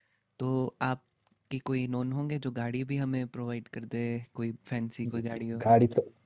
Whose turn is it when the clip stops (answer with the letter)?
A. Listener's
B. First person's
A